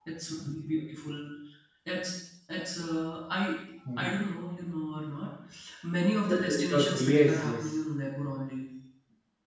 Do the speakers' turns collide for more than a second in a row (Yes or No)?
Yes